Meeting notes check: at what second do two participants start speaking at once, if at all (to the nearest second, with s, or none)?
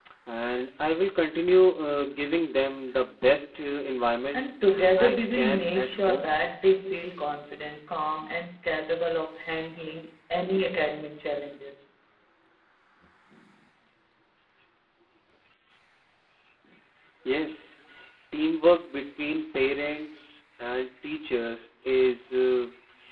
5 s